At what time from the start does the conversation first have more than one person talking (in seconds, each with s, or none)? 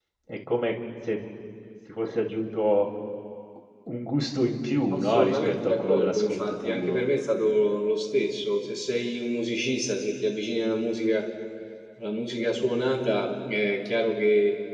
4.9 s